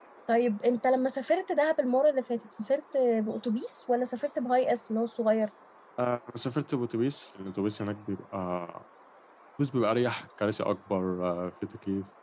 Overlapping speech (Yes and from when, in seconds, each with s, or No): No